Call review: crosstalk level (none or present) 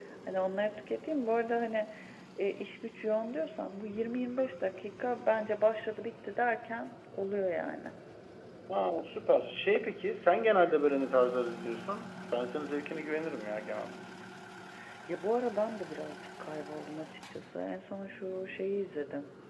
none